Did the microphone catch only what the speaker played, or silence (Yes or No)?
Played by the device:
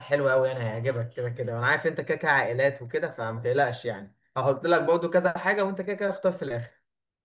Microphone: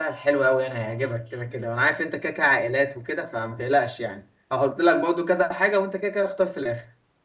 Yes